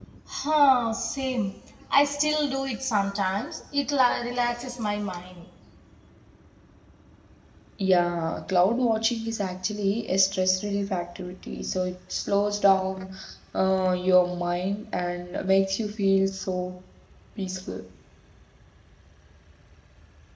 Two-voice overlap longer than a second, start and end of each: none

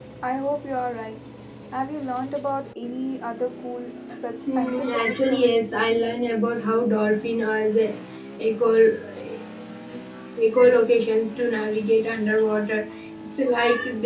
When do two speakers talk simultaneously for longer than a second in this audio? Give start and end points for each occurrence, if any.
4.5-6.2

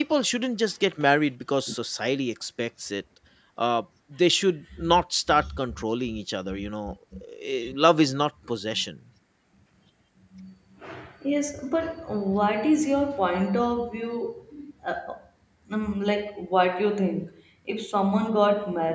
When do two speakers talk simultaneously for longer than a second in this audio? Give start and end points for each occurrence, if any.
none

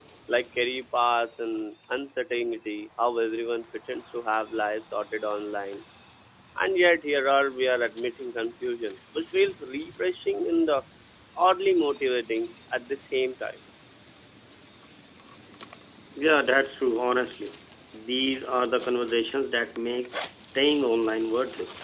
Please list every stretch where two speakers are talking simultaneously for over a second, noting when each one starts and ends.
none

